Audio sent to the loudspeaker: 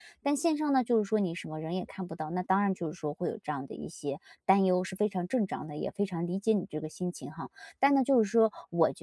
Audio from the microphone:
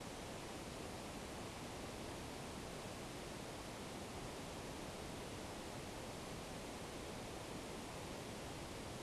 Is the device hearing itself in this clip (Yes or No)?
No